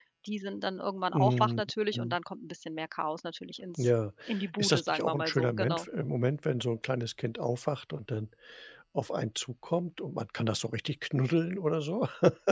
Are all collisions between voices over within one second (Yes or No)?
No